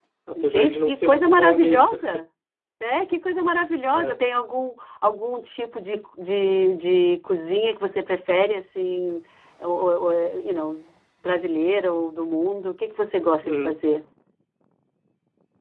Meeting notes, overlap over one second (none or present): present